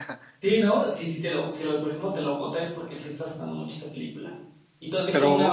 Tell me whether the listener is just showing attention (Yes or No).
Yes